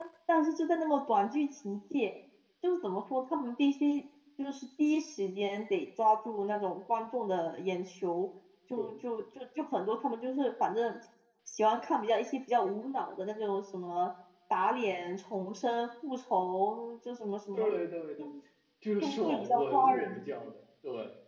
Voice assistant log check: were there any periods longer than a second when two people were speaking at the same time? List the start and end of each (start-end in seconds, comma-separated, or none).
19.0-20.3